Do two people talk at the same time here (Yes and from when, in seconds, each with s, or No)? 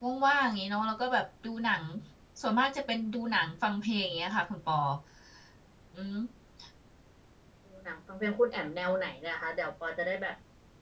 No